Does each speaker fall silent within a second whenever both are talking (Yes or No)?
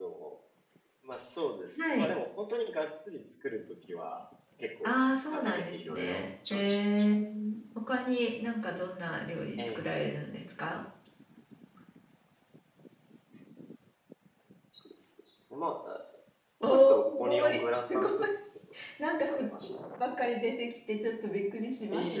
No